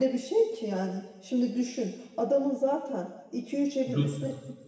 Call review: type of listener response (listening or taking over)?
listening